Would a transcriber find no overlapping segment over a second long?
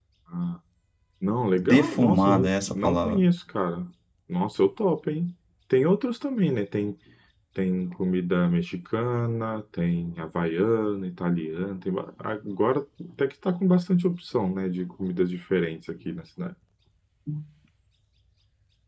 No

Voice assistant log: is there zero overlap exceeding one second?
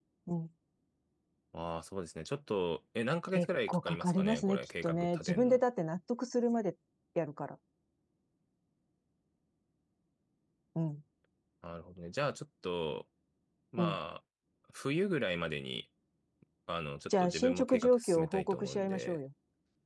No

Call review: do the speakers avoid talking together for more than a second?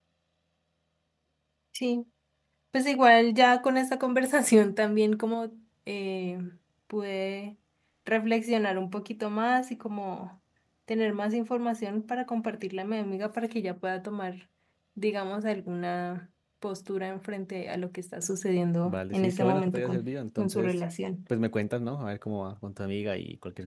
No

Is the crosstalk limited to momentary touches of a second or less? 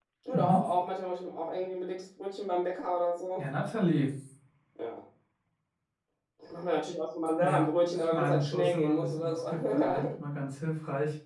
No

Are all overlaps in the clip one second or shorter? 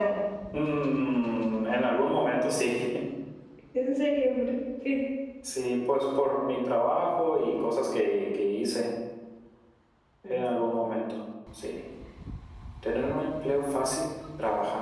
Yes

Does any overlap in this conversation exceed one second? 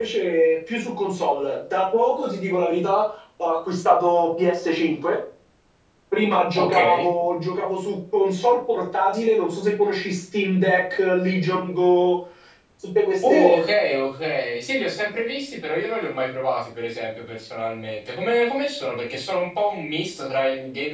No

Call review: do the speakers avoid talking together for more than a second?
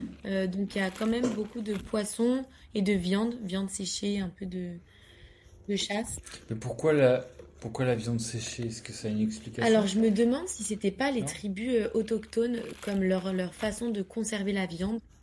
Yes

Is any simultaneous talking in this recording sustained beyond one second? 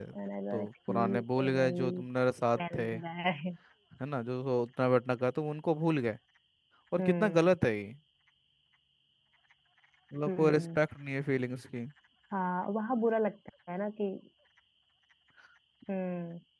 Yes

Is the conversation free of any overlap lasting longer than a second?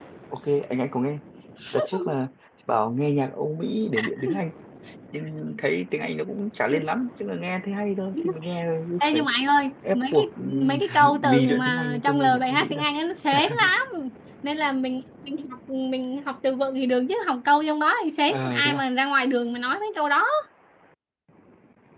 No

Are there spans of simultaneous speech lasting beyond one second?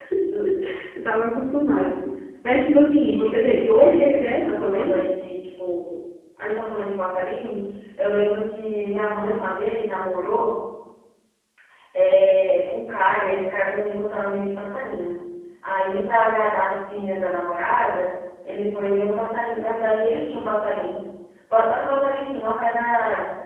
Yes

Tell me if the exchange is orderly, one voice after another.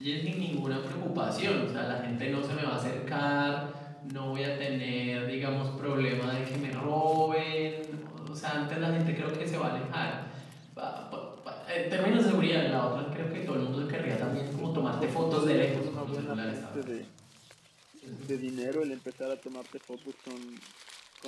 No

